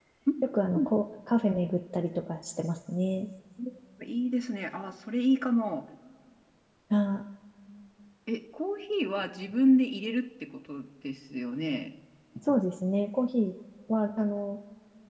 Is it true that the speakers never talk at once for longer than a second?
Yes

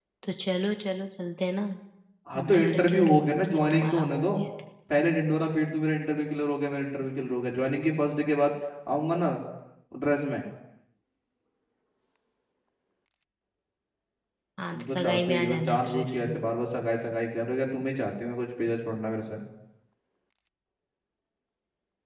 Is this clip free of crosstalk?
No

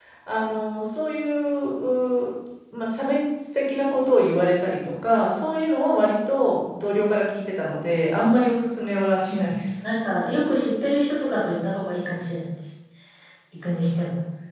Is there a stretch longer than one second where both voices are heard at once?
No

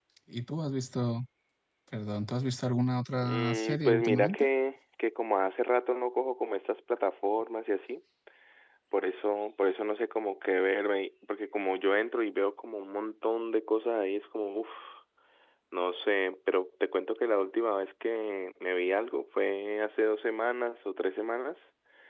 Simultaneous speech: Yes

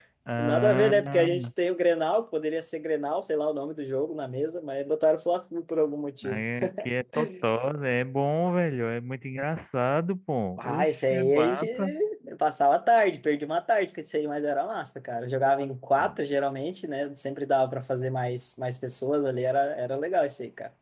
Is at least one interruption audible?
Yes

